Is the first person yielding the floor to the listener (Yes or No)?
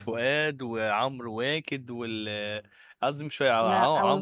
No